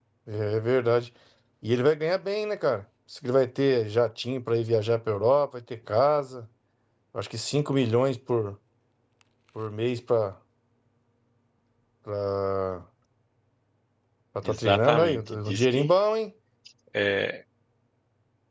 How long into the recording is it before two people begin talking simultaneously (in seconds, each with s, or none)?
14.4 s